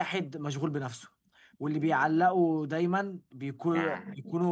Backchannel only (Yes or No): Yes